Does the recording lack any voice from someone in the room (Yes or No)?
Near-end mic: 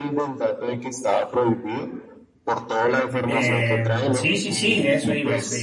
No